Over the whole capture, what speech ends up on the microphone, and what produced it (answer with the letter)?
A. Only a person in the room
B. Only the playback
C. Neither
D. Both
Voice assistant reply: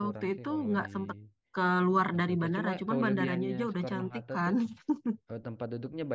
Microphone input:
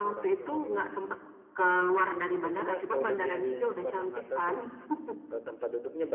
B